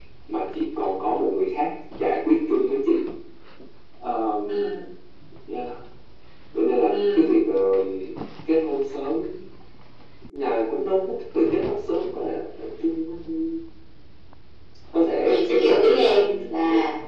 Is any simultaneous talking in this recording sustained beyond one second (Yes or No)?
Yes